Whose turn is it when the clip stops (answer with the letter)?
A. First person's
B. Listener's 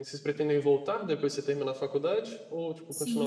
B